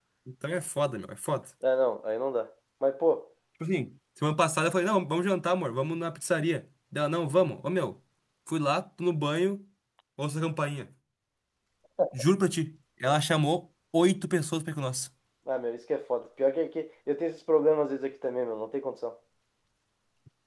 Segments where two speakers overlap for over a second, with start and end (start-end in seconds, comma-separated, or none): none